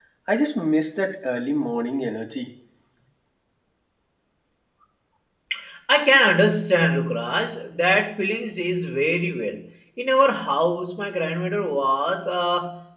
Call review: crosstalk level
none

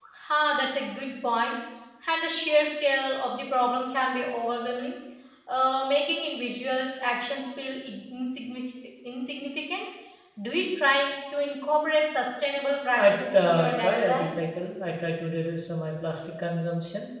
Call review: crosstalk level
present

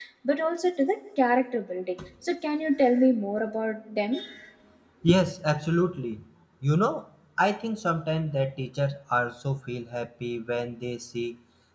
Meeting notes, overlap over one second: none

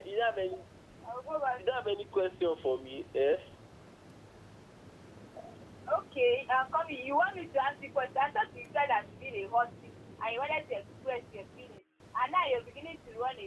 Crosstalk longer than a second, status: none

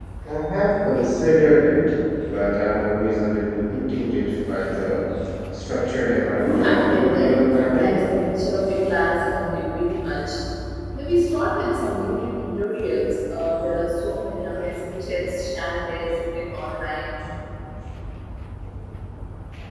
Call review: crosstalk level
present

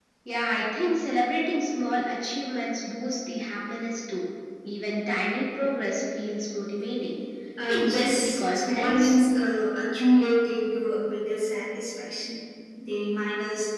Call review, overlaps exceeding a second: present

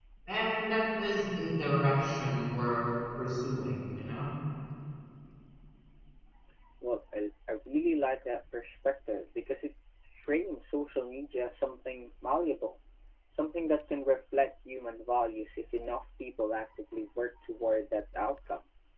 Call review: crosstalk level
none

